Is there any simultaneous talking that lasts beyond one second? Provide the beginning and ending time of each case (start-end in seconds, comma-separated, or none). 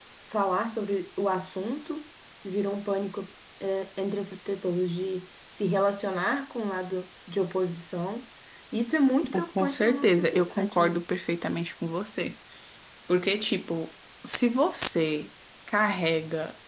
9.3-11.0